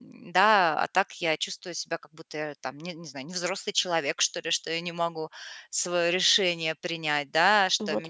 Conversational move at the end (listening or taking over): listening